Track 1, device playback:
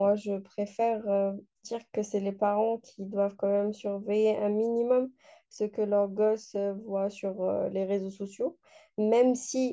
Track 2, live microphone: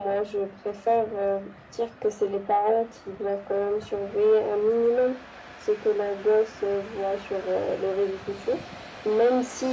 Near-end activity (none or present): none